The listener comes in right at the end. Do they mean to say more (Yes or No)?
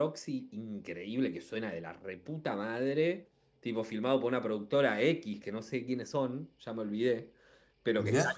No